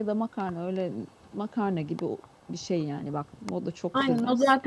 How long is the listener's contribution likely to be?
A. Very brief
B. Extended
B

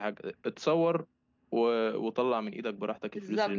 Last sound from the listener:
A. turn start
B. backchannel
A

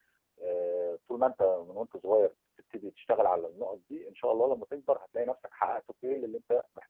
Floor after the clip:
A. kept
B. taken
A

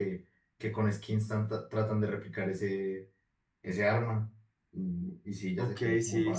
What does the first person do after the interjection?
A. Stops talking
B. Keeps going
A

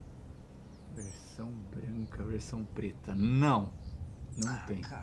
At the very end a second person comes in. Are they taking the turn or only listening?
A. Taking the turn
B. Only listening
A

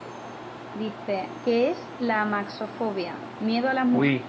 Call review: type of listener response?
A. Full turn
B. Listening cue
B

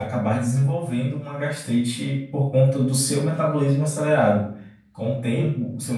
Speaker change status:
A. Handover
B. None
B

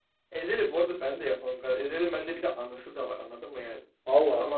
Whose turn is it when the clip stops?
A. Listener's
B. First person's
B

